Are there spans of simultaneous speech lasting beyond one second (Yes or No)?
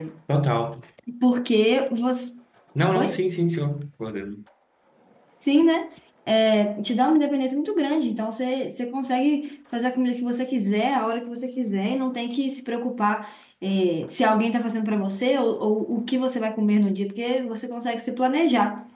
No